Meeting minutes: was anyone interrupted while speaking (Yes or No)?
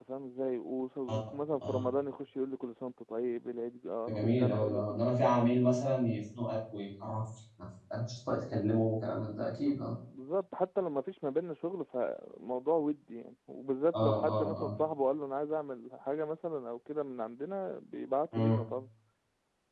Yes